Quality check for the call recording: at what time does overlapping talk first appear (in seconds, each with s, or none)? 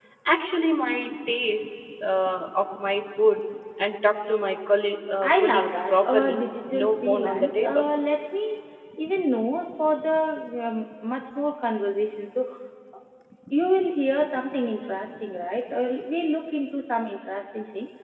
5.2 s